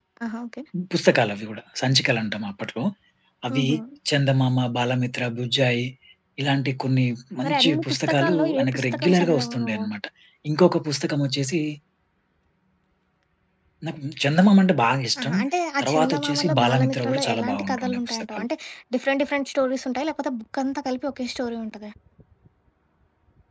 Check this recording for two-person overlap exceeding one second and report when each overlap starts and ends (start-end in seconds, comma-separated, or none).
7.4-9.8, 15.8-18.4